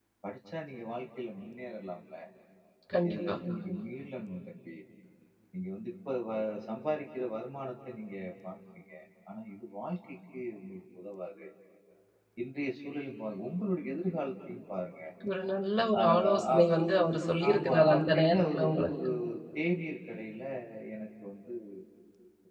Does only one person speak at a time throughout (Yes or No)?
No